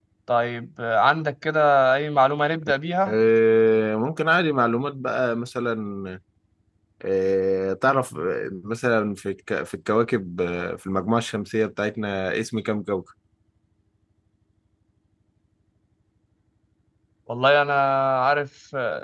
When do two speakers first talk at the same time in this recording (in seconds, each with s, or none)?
none